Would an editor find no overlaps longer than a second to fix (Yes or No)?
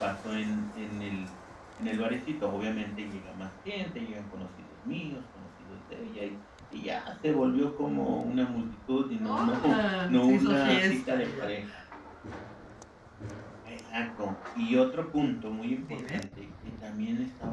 No